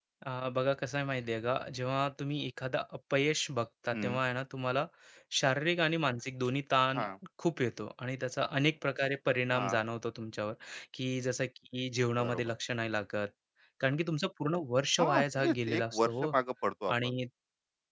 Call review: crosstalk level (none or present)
present